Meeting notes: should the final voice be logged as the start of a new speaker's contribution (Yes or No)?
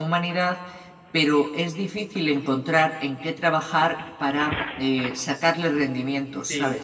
Yes